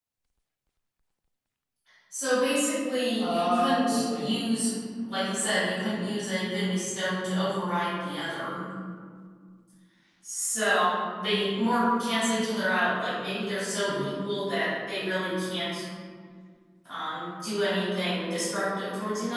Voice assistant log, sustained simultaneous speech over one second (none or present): present